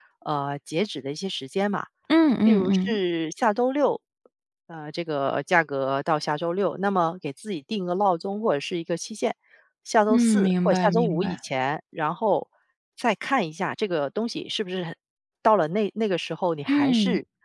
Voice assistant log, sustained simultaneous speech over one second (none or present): present